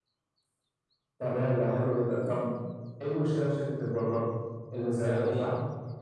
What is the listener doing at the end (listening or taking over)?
taking over